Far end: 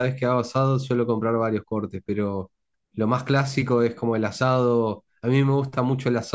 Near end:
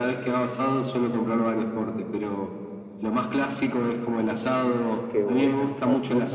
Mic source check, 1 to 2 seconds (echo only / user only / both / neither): echo only